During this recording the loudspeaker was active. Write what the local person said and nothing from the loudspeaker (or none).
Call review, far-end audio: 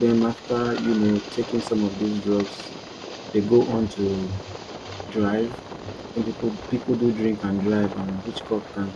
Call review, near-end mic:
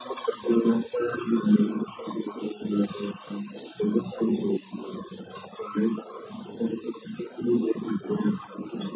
none